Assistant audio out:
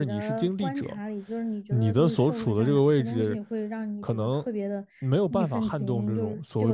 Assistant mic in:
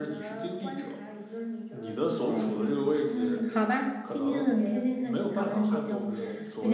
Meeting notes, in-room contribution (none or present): present